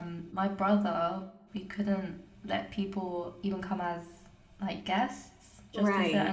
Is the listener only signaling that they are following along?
Yes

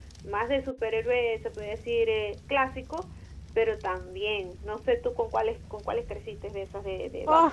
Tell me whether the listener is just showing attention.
No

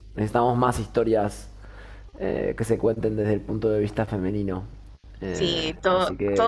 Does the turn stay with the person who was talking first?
No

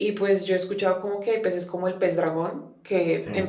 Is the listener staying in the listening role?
Yes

